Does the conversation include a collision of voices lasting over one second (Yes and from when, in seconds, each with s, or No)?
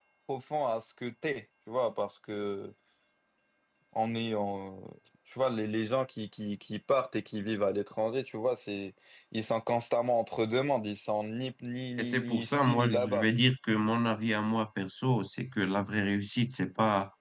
Yes, from 12.0 s